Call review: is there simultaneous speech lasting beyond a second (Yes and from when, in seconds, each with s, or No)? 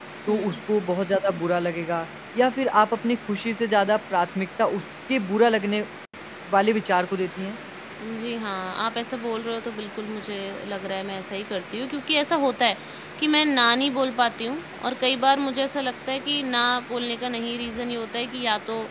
No